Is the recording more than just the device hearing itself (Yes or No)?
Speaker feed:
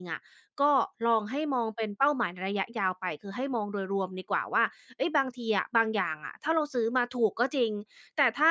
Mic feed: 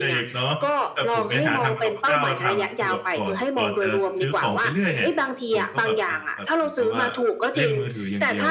Yes